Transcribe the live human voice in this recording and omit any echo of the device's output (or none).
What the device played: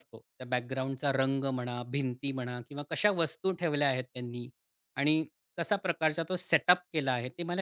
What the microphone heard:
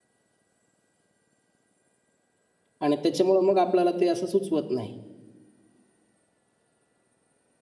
आणि त्याच्यामुळं मग आपल्याला ते असं सुचवत नाही.